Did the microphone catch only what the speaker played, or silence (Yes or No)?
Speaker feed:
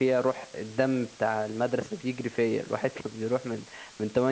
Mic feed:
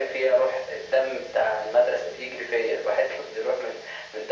Yes